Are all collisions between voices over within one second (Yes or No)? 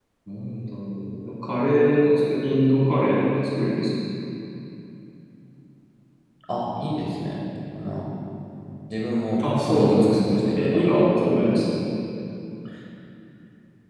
No